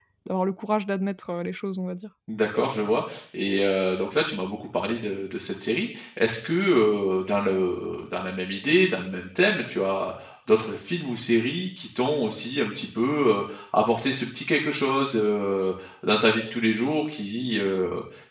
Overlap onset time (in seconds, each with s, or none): none